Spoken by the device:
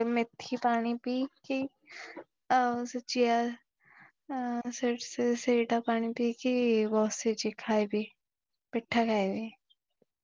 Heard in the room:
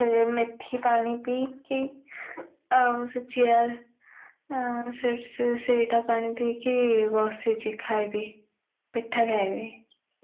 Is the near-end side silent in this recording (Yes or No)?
Yes